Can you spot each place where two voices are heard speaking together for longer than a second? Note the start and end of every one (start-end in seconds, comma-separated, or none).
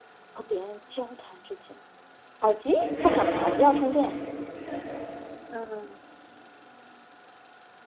2.8-4.2